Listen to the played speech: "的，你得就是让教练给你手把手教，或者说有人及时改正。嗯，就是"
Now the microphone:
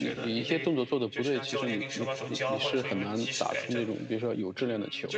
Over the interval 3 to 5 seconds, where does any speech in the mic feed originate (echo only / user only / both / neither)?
both